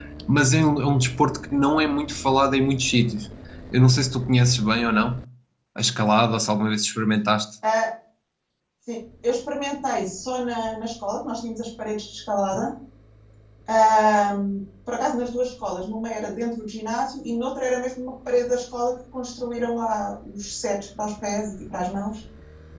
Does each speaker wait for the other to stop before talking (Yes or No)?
Yes